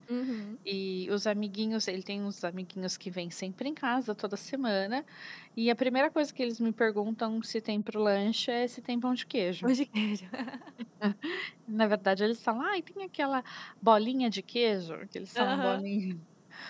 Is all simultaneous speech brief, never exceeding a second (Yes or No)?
Yes